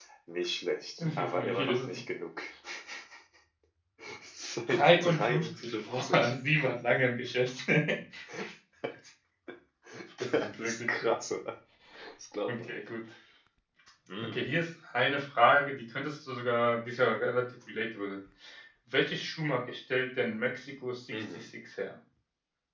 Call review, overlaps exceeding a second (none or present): present